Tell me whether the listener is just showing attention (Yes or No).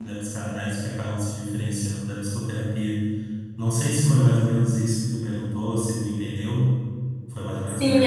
No